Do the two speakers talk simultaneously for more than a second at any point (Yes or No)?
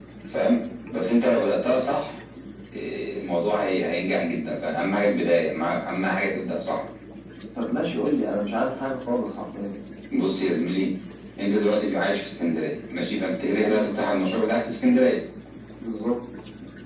No